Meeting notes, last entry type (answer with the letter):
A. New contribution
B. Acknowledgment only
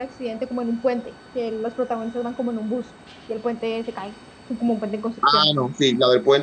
A